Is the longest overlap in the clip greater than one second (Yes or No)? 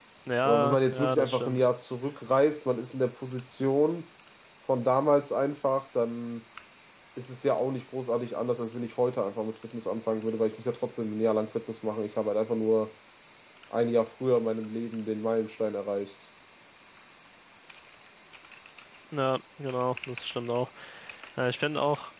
Yes